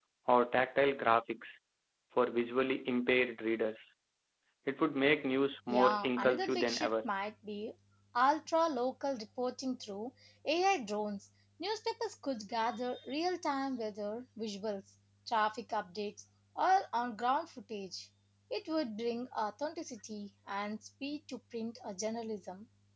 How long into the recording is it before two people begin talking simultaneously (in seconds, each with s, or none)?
5.7 s